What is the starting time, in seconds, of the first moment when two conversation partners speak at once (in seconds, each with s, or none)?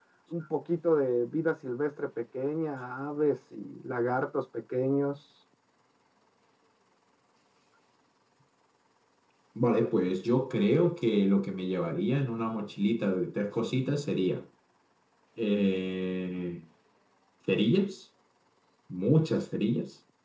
none